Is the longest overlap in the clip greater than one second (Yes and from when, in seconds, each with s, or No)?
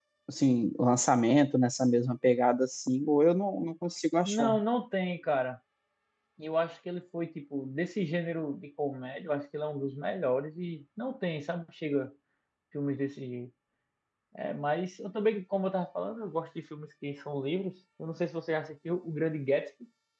No